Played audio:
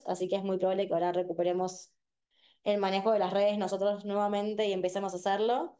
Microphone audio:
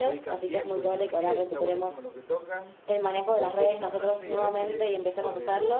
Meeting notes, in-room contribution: present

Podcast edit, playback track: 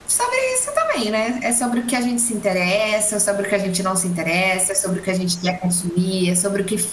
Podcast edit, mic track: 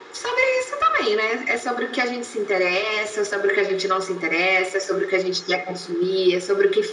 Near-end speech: none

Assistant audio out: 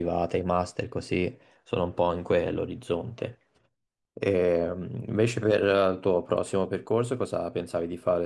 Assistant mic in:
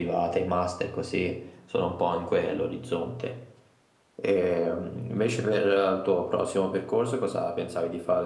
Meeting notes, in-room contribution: none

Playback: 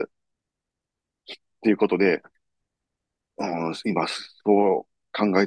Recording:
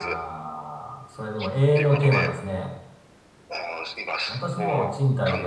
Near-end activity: present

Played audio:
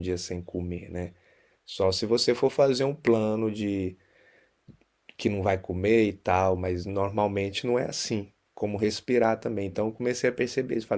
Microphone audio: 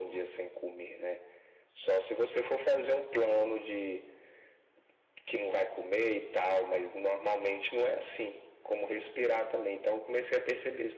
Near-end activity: none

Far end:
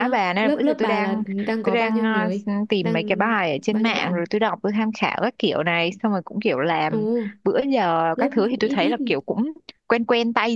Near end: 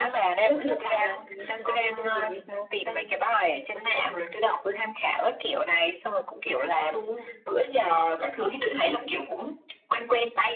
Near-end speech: none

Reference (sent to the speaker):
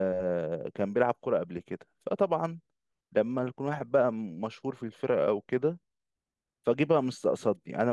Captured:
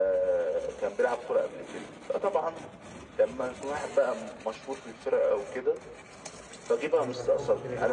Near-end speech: present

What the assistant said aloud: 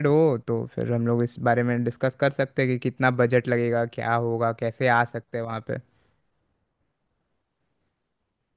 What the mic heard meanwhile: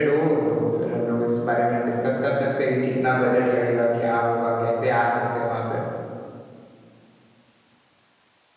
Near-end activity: none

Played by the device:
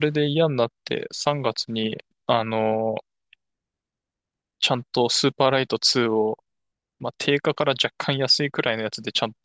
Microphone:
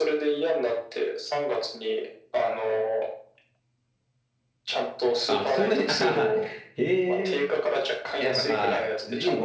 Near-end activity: present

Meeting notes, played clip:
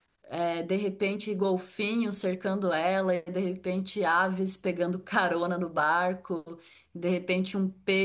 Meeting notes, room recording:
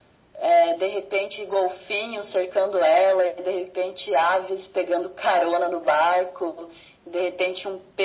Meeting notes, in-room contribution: none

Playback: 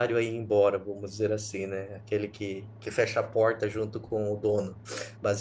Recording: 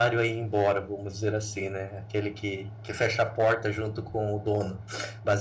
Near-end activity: none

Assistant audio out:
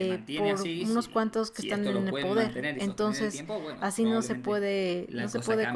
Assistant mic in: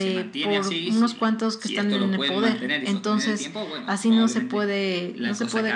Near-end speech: none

